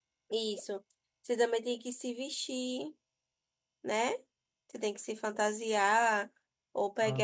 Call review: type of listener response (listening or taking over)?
listening